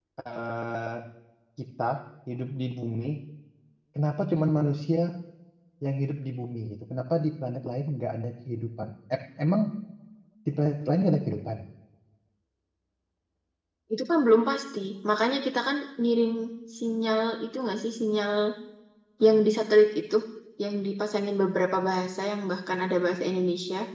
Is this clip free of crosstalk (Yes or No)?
Yes